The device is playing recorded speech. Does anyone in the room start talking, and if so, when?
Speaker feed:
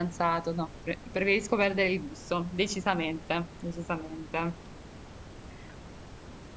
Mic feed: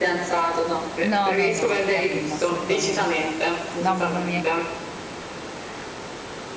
1.0 s

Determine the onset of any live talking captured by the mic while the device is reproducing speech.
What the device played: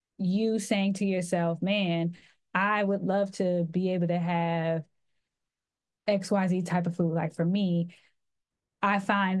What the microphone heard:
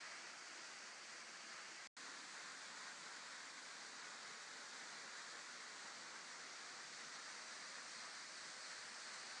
none

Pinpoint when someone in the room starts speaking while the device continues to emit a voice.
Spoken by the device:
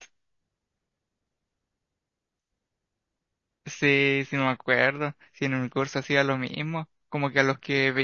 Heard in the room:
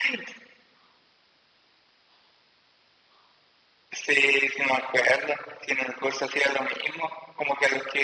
none

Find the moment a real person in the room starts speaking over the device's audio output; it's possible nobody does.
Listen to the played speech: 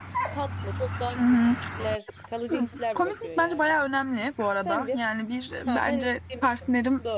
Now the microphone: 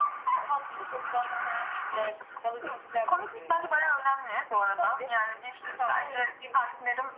none

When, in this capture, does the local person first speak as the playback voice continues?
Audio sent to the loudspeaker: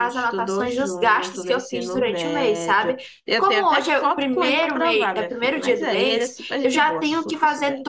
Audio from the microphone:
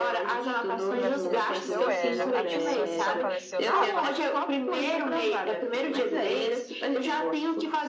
0.9 s

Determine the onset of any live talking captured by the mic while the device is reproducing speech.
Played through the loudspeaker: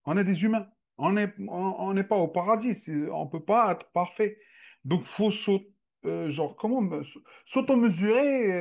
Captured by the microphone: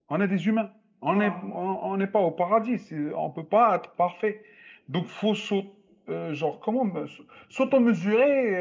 1.1 s

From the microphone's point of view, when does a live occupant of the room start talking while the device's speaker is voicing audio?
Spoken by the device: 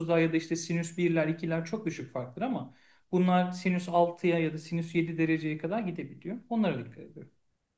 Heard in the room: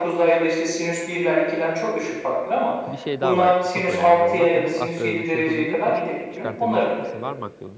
2.9 s

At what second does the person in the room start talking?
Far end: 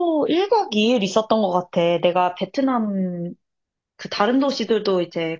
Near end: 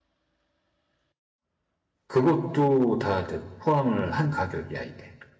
2.1 s

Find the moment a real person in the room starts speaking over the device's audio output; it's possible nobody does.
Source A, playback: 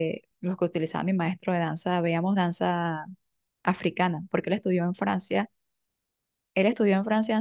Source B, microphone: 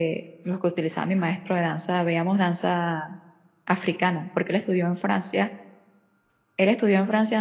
none

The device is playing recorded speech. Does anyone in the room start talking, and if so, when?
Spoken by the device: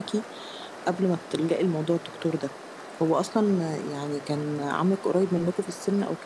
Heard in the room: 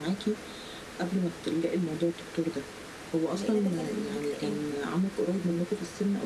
3.3 s

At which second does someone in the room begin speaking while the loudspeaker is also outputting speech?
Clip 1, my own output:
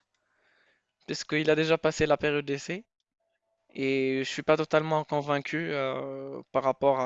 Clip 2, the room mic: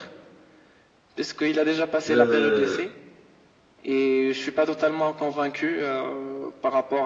2.1 s

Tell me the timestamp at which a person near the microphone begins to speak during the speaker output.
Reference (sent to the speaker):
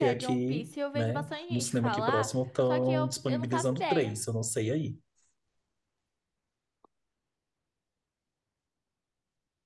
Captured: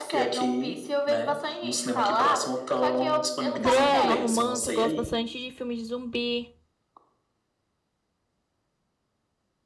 3.6 s

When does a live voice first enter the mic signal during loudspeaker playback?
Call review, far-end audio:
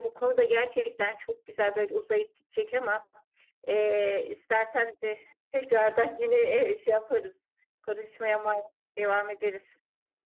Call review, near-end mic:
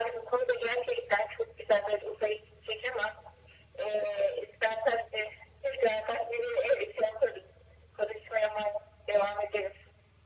none

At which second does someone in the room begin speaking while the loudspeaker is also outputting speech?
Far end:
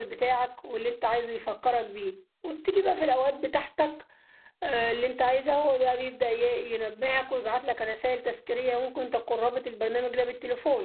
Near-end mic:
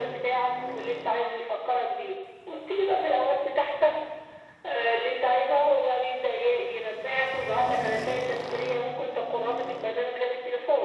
none

